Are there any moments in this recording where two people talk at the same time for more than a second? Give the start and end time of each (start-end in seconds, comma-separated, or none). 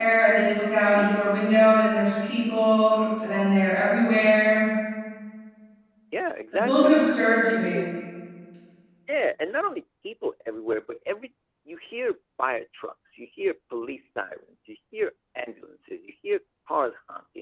6.5-7.9